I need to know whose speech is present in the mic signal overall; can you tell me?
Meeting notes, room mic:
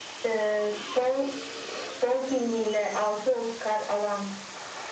echo only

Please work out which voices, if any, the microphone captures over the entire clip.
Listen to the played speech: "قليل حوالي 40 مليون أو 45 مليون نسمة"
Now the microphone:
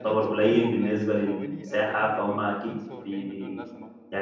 both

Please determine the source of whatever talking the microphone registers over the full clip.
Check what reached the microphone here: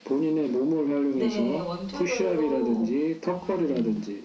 both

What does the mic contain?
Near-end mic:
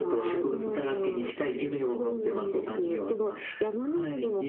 echo only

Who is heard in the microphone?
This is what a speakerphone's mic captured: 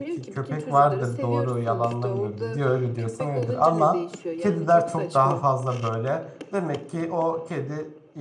both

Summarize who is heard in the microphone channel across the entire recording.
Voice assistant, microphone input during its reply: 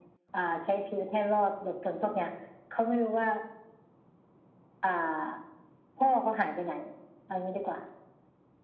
echo only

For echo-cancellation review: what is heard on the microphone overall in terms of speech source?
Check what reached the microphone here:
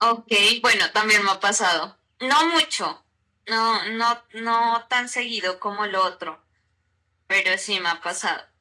echo only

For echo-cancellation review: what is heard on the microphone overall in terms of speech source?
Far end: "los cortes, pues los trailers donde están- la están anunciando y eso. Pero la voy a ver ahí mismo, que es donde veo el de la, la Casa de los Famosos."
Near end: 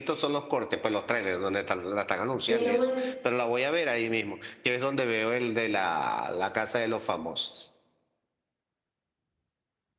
both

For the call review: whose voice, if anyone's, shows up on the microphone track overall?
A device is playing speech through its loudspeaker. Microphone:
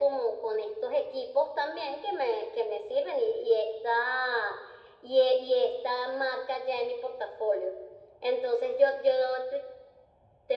echo only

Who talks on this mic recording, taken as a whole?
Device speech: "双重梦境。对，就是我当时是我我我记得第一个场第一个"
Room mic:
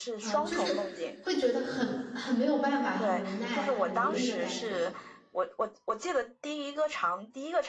both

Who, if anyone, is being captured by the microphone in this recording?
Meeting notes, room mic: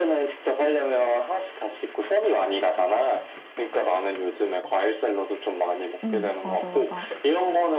both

